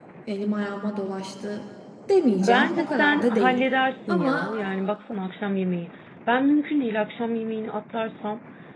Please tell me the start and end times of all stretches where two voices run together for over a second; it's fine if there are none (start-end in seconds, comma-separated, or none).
2.3-3.6